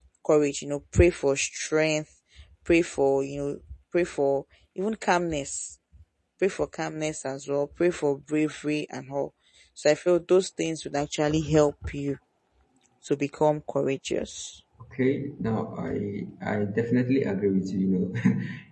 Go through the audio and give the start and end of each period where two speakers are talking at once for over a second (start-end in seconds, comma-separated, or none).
none